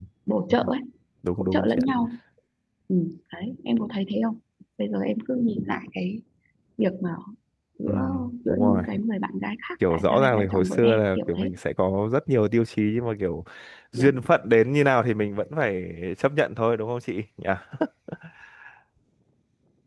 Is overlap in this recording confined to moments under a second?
No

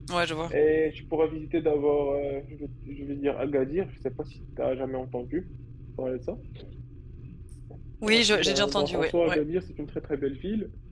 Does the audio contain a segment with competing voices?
Yes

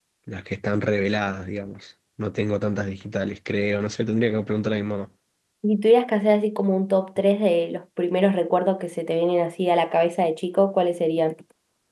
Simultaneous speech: No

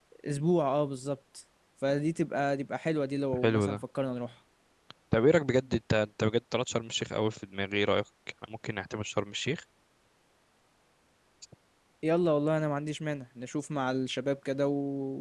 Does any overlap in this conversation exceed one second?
No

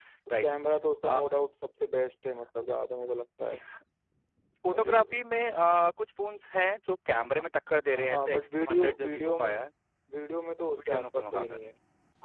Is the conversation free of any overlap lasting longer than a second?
No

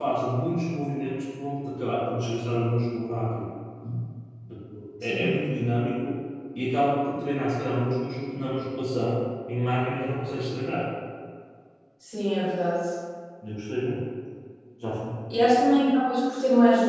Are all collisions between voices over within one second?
Yes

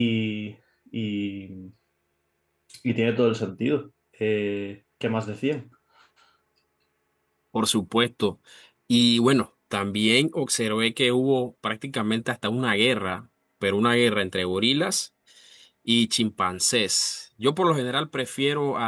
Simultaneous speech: No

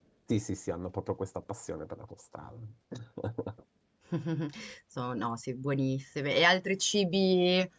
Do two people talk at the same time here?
No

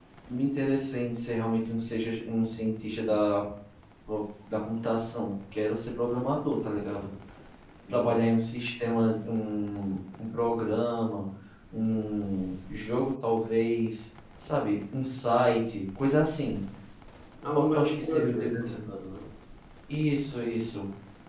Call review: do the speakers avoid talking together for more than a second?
No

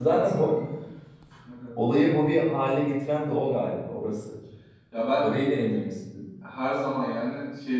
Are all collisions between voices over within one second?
Yes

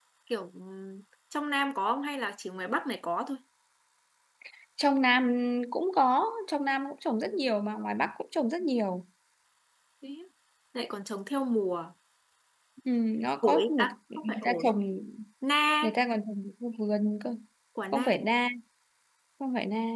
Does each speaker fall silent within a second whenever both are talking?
No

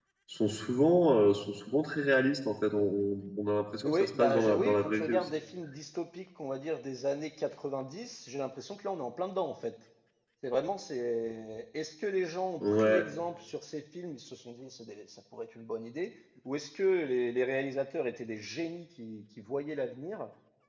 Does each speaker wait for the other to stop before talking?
No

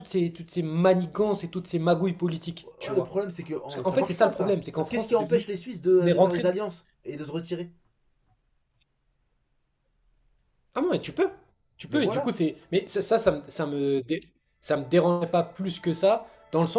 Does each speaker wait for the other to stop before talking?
No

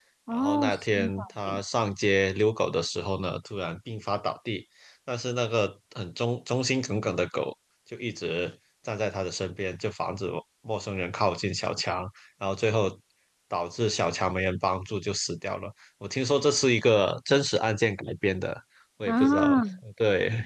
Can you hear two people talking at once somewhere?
Yes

